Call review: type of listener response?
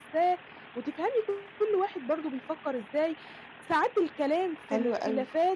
listening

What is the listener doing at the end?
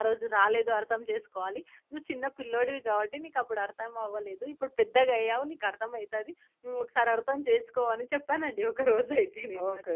taking over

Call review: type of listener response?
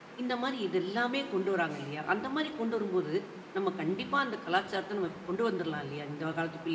taking over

